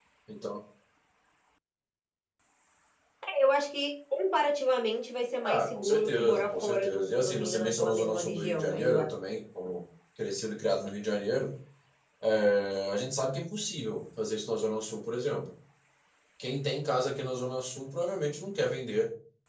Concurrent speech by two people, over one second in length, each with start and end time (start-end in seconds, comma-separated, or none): 5.4-9.1